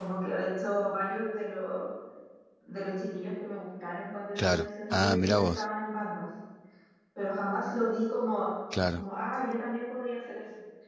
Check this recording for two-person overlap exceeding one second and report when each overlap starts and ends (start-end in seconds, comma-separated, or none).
4.4-5.6